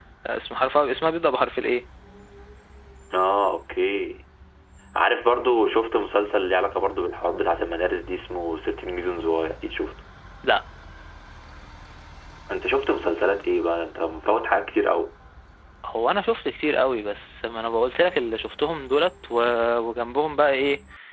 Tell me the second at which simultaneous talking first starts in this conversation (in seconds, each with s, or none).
none